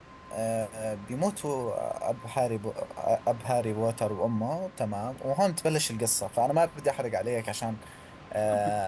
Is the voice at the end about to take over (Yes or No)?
No